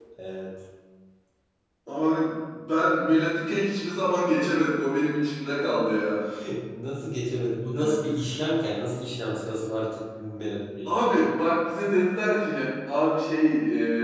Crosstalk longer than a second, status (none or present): none